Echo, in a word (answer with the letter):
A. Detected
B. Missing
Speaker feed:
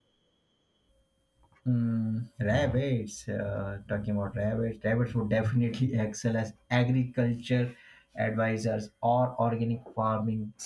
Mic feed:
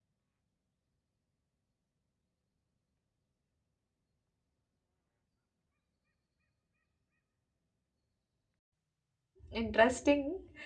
B